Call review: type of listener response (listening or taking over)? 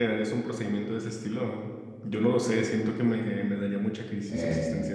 taking over